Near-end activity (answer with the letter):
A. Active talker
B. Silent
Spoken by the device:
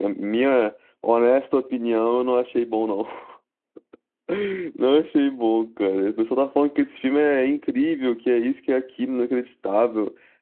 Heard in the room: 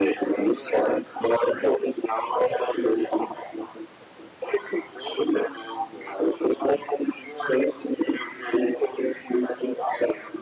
B